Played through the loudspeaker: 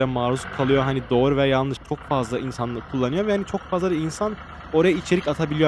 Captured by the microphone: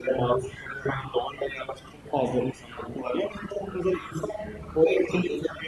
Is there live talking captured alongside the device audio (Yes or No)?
No